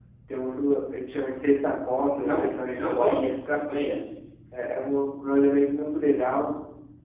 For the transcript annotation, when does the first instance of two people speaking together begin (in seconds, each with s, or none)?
2.1 s